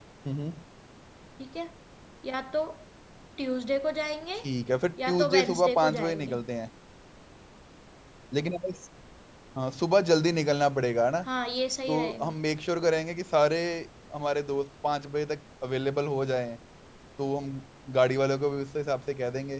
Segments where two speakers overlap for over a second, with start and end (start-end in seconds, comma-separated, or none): 5.1-6.4